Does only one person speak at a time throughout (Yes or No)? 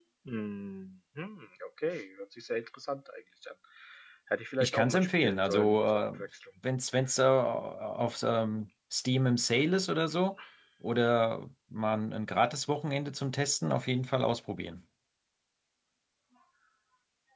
No